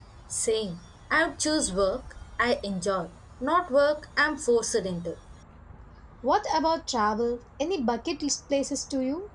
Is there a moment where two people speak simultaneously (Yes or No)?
No